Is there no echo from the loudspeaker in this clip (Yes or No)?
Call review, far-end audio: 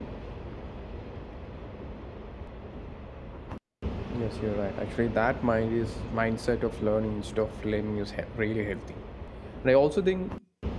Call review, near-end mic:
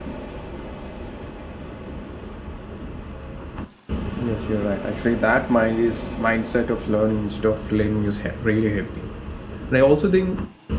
No